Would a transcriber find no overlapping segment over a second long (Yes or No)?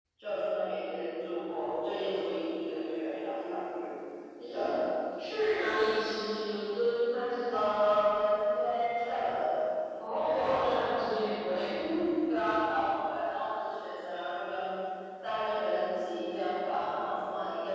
Yes